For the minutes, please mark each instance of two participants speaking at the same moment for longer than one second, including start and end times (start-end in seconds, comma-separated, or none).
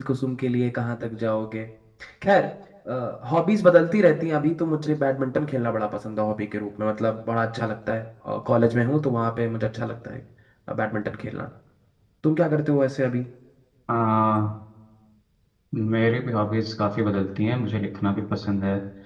none